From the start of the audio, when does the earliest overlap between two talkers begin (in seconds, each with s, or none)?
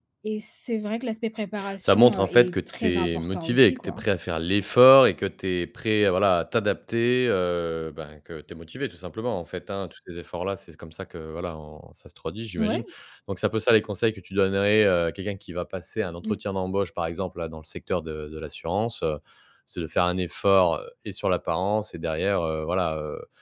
1.6 s